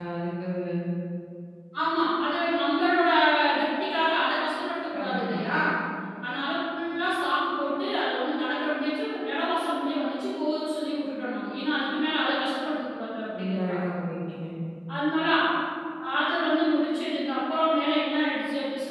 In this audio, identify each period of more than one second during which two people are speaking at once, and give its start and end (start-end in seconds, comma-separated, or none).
none